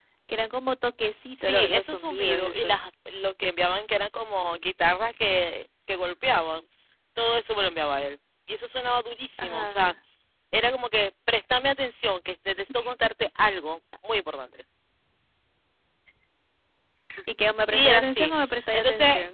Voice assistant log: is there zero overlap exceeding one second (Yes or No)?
No